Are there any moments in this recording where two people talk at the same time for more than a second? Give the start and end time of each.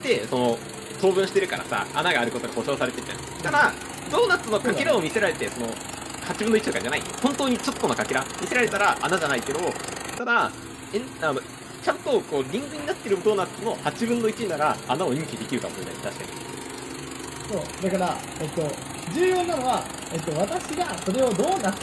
none

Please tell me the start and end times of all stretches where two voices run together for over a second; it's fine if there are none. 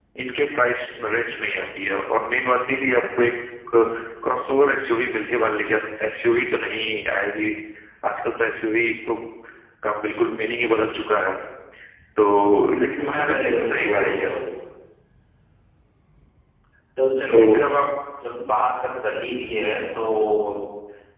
12.6-14.3

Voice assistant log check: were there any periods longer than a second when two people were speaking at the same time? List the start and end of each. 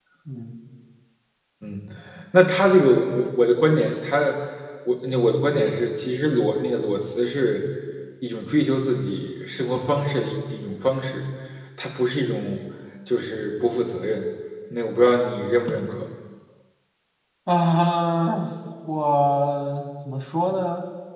none

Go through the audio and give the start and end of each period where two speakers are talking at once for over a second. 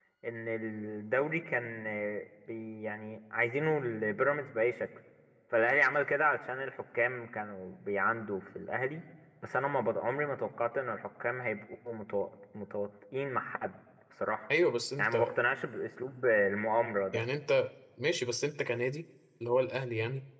none

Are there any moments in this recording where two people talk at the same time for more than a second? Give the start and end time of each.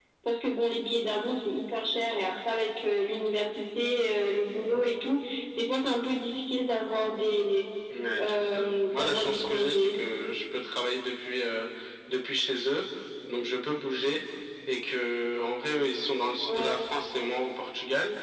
8.2-10.0

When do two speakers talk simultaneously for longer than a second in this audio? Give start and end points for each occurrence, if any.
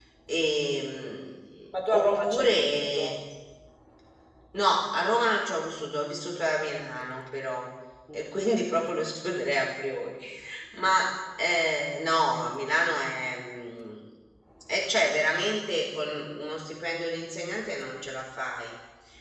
1.9-3.1

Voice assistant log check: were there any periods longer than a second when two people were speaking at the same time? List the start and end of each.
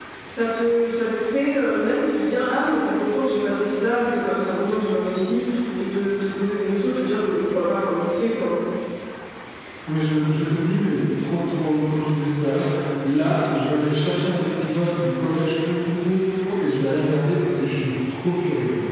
none

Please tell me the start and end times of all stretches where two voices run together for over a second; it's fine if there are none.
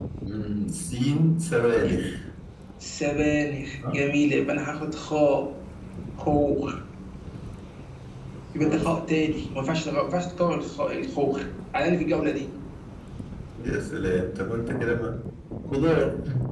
none

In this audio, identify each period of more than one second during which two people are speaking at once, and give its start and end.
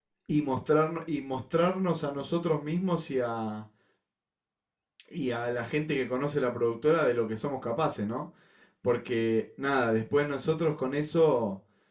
none

